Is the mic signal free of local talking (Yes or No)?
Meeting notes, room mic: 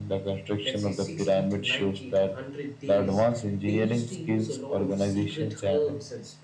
No